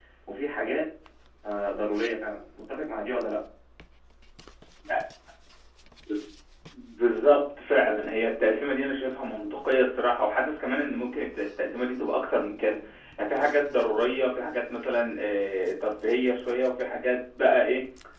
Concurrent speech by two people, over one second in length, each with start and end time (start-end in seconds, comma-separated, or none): none